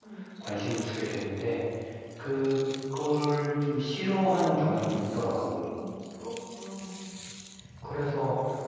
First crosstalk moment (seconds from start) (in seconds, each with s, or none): 4.5 s